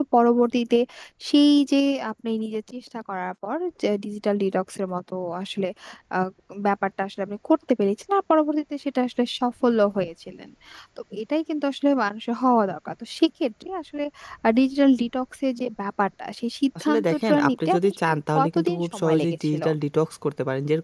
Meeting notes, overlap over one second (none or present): present